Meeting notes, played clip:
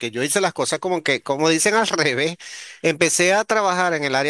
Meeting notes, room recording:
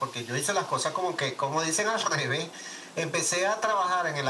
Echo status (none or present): present